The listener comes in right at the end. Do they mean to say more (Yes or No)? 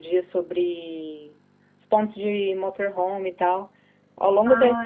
No